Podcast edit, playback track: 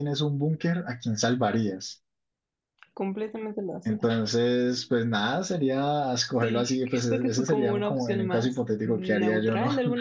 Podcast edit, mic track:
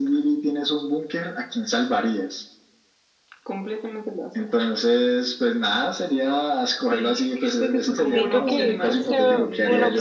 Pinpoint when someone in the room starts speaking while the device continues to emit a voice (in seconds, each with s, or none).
8.1 s